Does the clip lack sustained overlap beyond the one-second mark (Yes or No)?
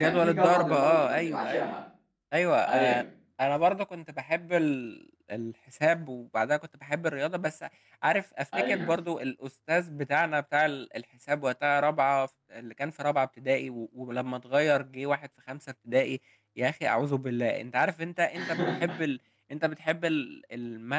No